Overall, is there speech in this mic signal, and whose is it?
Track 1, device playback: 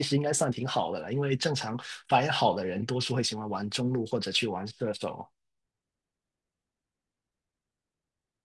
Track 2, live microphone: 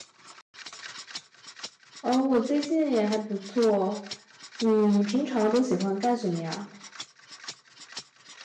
user only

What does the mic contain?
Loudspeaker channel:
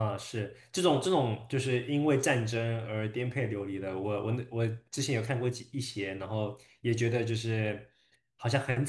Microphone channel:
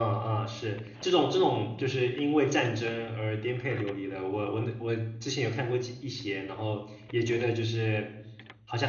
echo only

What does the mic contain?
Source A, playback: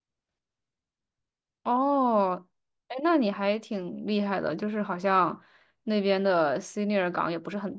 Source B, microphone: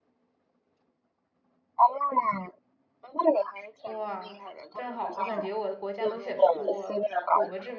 both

